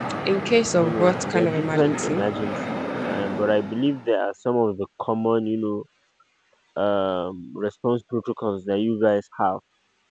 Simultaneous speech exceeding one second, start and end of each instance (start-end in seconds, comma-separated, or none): 0.8-2.2